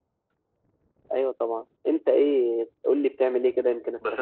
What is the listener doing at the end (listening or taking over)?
taking over